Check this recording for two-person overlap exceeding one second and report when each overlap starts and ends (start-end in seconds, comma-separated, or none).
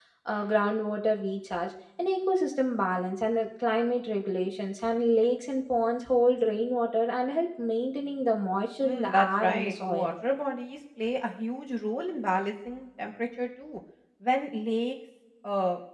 8.8-10.1